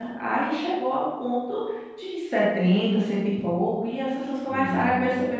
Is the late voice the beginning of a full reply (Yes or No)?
Yes